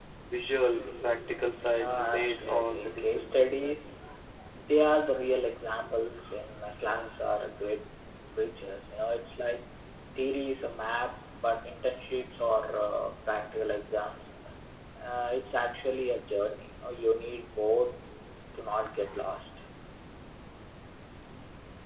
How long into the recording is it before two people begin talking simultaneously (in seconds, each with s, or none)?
1.6 s